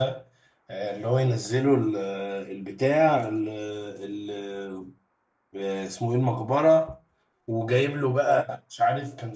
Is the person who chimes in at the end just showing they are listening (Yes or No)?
Yes